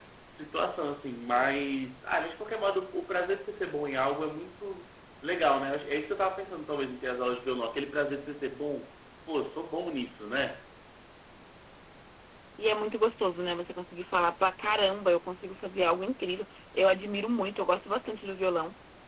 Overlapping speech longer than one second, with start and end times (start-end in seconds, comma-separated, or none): none